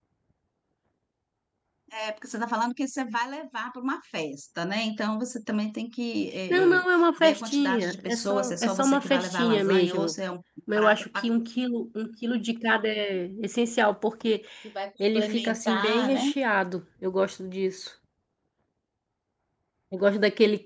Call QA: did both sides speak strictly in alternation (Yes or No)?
No